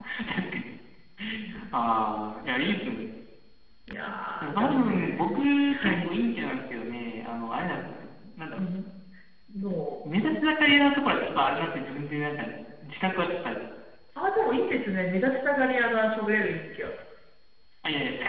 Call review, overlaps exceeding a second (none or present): present